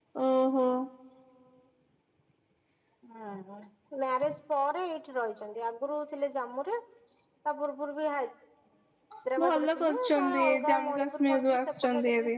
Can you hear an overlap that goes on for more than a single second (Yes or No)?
Yes